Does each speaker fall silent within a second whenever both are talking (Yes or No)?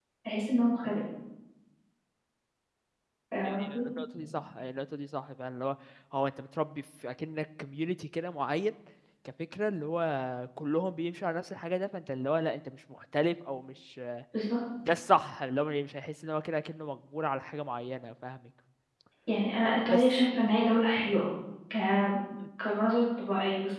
Yes